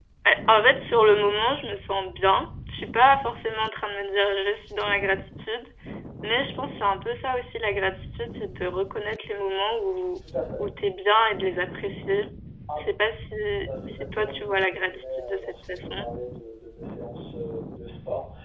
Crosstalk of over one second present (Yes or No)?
Yes